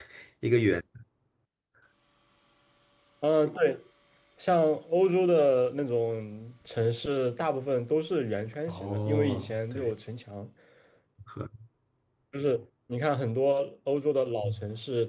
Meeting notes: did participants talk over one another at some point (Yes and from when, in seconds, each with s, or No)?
Yes, from 8.7 s